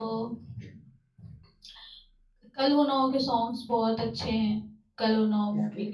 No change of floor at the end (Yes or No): Yes